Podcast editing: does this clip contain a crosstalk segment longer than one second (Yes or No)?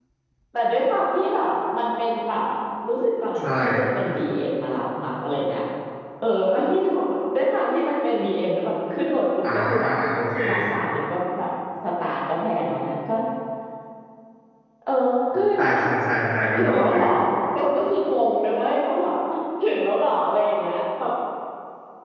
No